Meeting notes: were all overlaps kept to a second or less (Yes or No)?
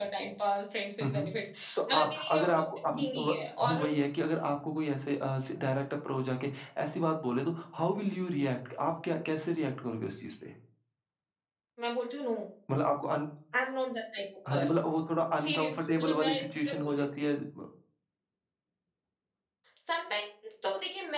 No